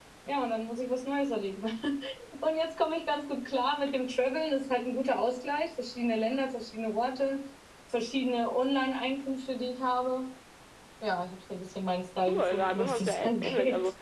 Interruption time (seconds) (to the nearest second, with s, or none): 12 s